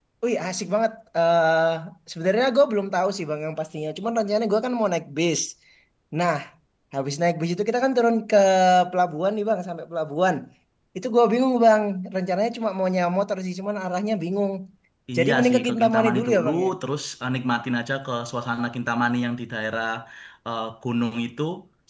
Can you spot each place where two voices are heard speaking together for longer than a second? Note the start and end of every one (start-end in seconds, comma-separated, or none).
15.2-16.7